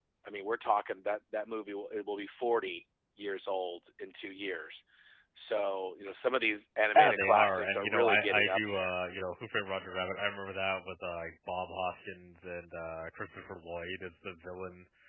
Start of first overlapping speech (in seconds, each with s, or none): 7.0 s